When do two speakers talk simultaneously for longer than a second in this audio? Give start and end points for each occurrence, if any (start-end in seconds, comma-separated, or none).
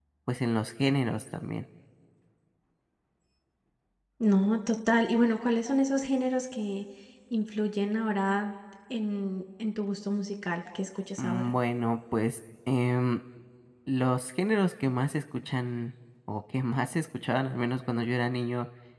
none